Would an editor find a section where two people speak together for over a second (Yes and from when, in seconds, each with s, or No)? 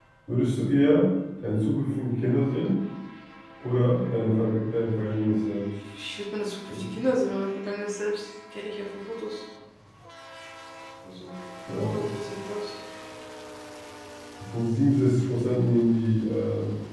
No